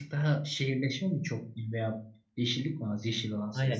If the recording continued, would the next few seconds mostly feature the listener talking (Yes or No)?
Yes